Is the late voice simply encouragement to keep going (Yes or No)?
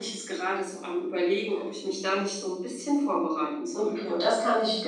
No